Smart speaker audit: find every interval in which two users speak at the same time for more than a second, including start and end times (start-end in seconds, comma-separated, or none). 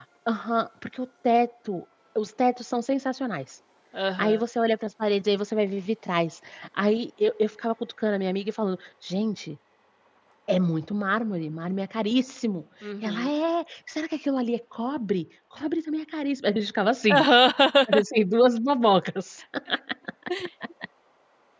none